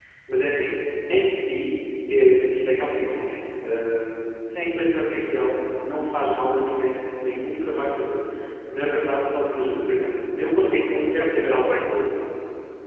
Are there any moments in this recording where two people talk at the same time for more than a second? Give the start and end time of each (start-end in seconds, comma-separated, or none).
10.7-12.0